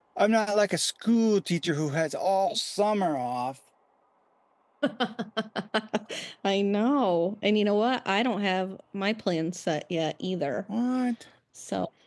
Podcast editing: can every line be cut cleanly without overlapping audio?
Yes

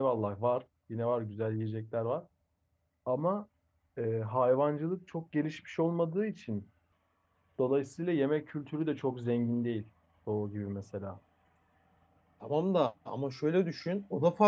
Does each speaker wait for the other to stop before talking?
Yes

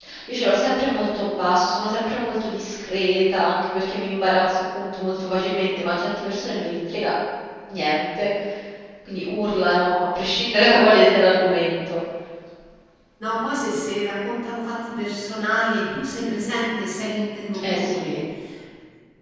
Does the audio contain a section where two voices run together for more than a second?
No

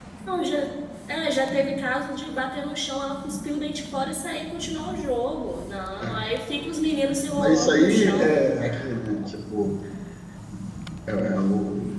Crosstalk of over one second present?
Yes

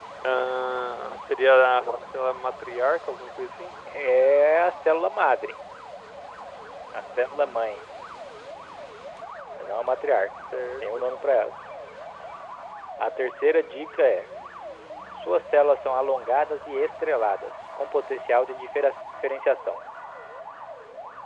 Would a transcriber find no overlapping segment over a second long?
Yes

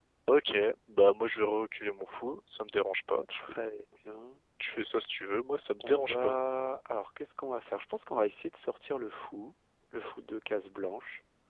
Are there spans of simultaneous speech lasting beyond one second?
No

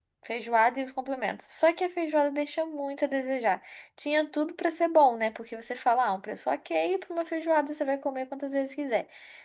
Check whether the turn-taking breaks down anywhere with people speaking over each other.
No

